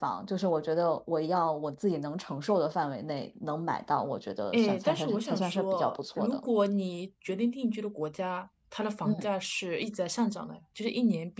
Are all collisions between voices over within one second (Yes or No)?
No